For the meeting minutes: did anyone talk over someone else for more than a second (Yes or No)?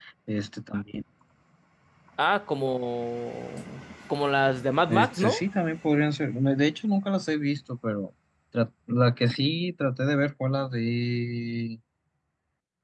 No